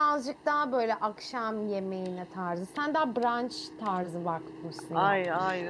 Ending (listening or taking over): taking over